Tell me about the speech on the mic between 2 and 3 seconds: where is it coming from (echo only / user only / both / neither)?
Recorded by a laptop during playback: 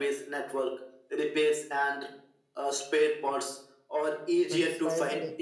echo only